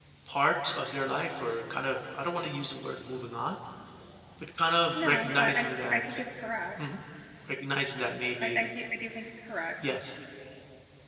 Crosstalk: present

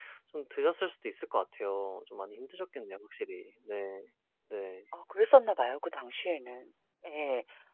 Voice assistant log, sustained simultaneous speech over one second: none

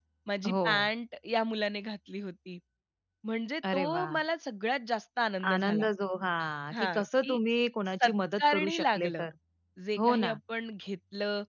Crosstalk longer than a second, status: present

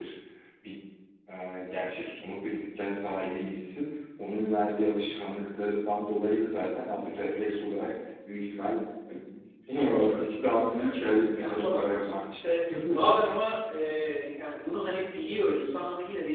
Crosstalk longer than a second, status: present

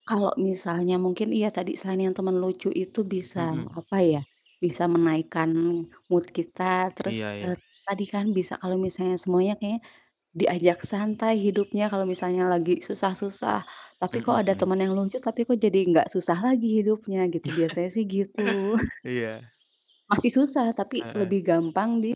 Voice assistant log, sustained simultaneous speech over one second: none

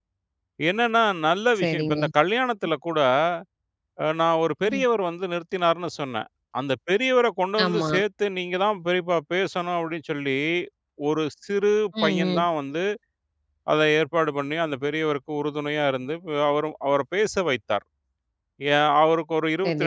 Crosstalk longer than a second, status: none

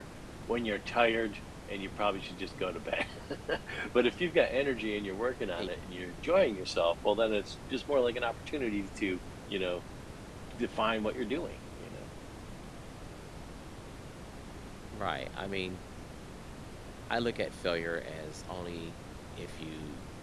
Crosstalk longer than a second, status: none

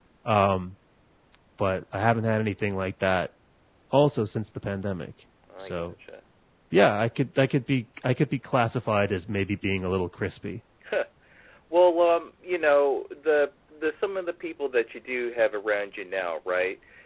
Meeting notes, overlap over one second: none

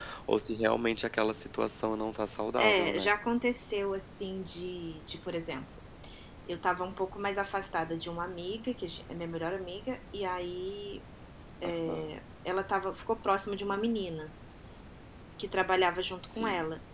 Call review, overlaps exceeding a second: none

